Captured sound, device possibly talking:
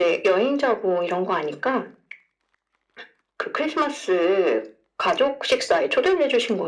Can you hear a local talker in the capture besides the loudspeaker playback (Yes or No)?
No